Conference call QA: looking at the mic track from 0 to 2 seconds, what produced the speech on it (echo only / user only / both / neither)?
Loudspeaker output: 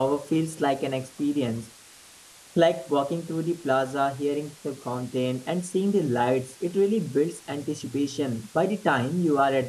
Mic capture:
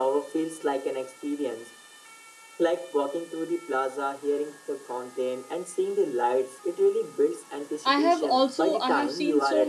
echo only